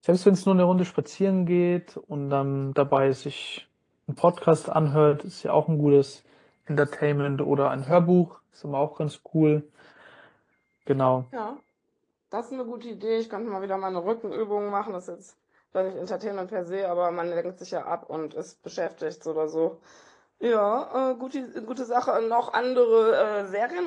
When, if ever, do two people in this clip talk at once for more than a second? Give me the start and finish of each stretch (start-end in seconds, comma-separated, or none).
none